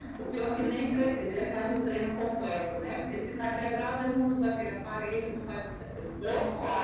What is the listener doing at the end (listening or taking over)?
taking over